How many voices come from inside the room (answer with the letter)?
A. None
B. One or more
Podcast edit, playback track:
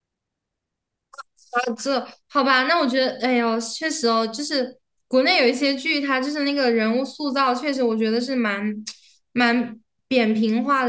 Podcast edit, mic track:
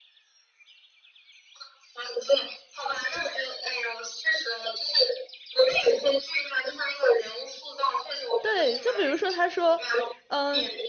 B